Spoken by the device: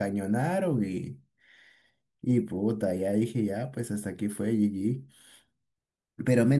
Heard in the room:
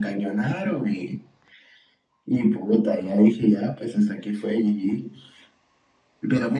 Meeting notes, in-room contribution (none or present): none